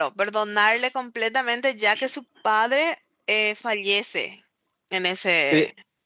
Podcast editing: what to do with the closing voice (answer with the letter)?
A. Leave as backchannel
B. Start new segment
B